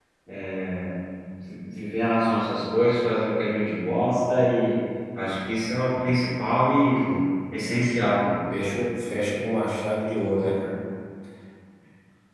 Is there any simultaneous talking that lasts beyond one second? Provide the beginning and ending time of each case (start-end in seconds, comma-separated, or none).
none